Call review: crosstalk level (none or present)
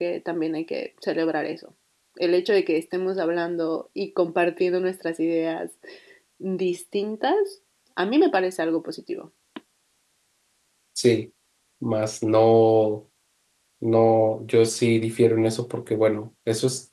none